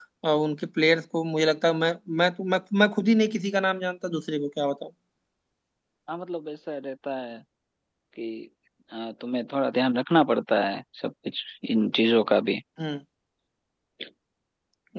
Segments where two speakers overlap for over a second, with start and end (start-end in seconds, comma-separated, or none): none